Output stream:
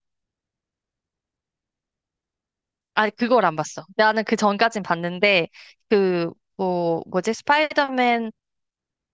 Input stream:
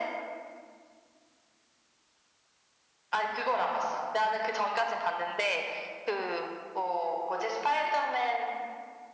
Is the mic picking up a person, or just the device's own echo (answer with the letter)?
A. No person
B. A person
A